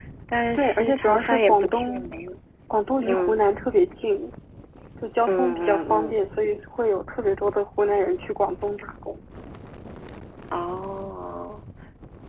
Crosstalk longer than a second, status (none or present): present